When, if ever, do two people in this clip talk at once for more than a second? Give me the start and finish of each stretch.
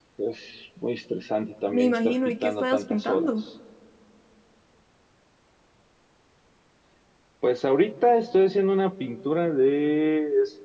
1.7-3.3

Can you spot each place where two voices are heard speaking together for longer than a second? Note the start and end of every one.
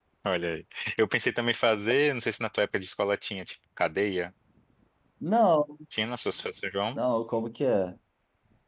none

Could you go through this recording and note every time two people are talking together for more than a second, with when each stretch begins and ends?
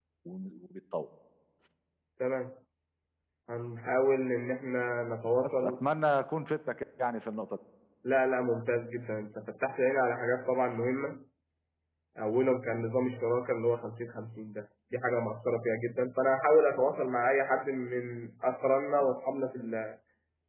none

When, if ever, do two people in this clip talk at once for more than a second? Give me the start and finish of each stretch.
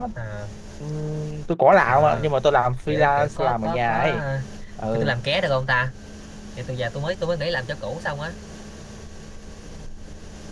2.9-4.2

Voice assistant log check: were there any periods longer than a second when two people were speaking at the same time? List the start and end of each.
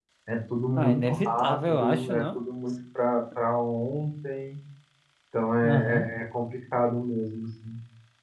0.8-2.4

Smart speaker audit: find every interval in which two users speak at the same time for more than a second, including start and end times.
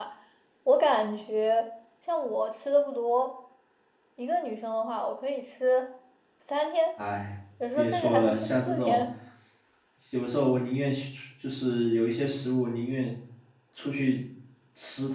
7.8-9.0

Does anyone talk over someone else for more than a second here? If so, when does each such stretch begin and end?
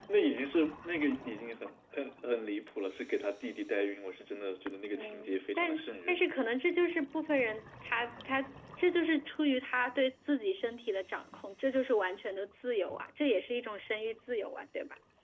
5.0-6.3

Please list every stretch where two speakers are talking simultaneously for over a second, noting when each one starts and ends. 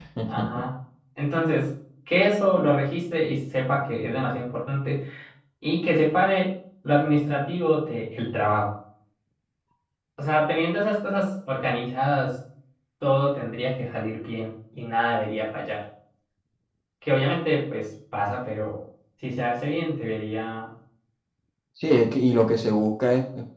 none

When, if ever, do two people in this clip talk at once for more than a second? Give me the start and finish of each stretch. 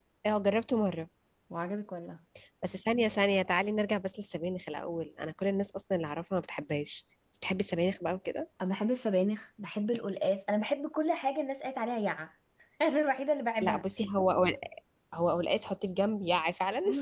none

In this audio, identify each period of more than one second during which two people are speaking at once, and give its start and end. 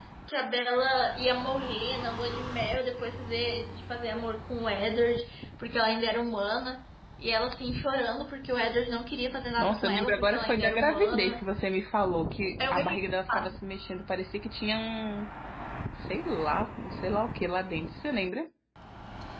9.6-11.4

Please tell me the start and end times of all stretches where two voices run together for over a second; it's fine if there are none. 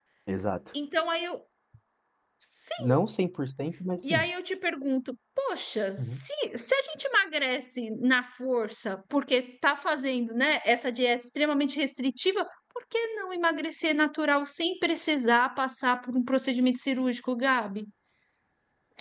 none

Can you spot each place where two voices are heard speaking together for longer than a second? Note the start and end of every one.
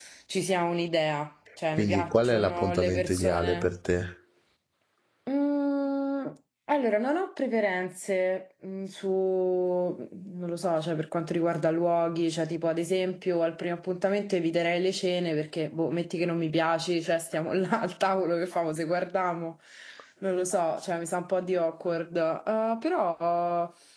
1.7-3.7

